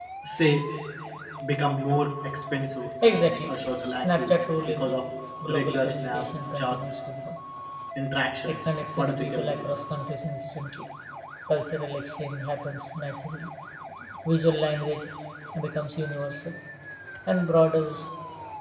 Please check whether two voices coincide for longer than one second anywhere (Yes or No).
Yes